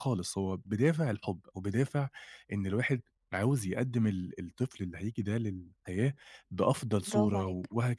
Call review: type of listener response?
listening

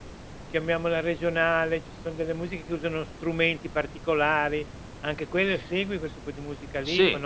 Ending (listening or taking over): taking over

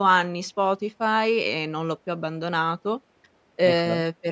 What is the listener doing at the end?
listening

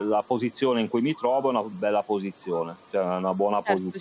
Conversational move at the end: taking over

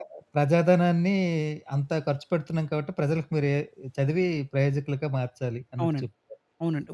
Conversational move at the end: taking over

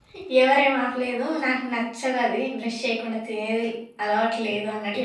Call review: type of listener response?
taking over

